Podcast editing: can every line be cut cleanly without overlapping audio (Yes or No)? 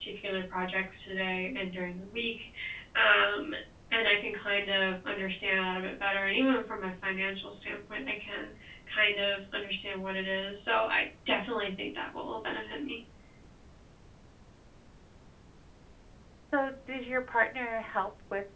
Yes